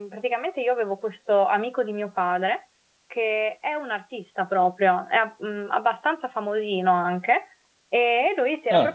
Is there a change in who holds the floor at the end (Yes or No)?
Yes